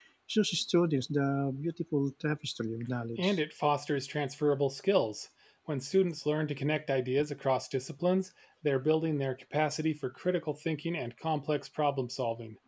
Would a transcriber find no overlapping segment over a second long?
Yes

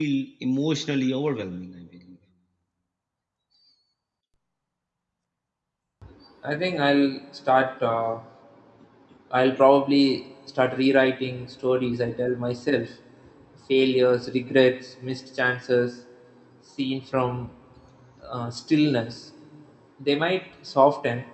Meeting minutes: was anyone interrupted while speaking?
No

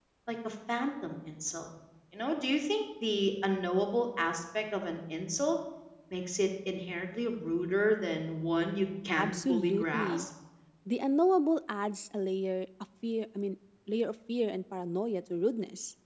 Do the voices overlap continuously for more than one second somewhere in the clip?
Yes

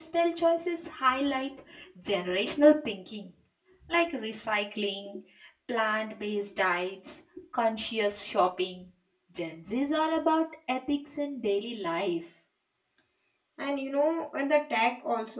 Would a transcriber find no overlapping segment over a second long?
Yes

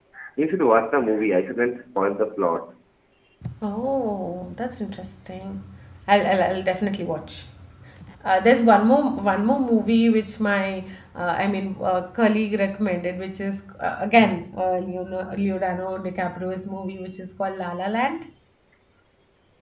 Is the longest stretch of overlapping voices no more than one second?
Yes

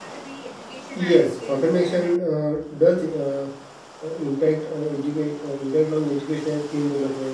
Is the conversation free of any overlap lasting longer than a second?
No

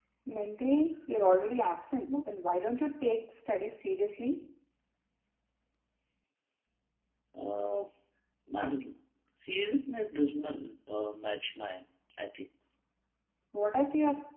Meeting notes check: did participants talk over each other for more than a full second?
No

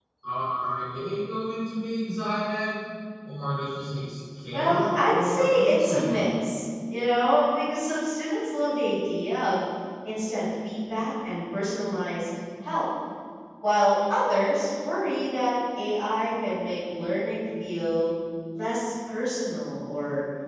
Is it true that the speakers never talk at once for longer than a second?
No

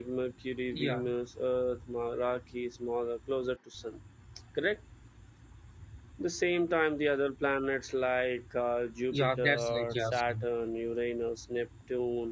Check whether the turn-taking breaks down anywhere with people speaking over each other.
Yes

